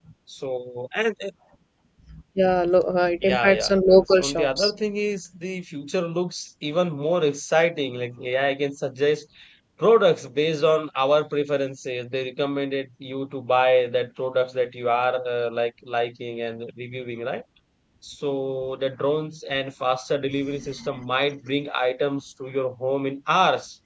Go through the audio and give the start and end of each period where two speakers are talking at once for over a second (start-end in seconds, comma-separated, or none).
3.2-4.7